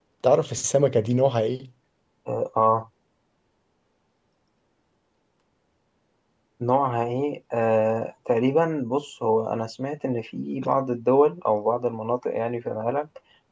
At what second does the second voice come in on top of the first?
none

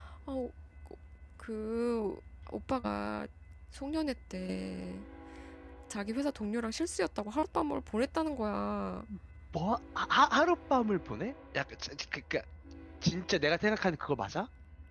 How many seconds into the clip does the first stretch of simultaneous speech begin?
none

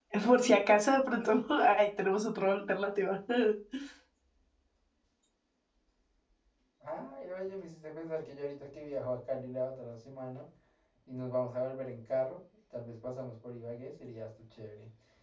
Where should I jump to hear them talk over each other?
none

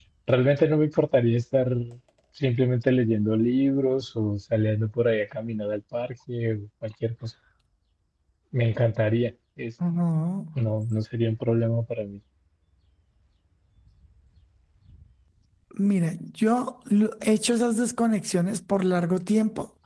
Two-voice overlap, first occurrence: none

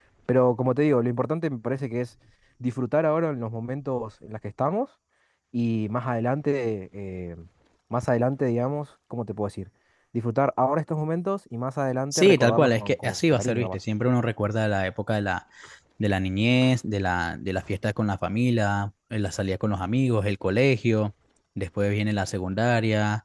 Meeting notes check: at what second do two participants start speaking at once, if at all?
12.1 s

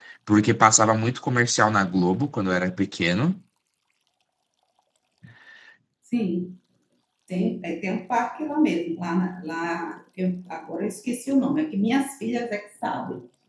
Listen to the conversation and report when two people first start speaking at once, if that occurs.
none

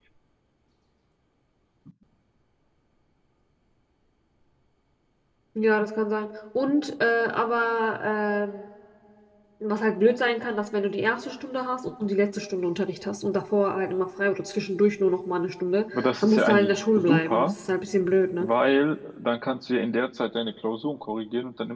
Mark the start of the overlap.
15.9 s

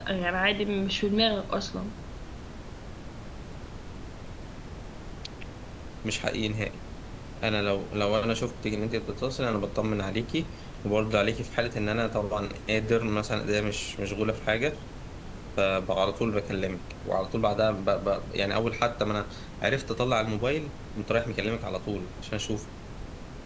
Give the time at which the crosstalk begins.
none

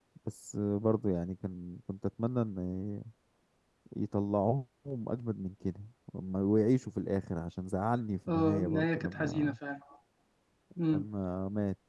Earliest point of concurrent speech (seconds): 8.3 s

